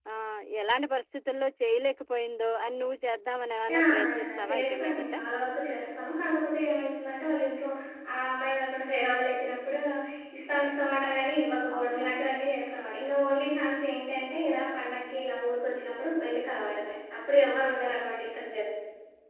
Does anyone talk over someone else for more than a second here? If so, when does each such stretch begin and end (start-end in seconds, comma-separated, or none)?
3.7-5.1